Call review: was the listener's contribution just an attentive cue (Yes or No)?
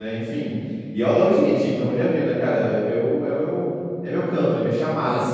No